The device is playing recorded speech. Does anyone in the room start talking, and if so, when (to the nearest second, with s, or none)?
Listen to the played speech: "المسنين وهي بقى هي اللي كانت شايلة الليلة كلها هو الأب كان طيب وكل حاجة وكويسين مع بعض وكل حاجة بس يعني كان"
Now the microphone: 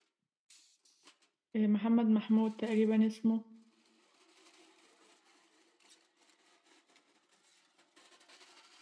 2 s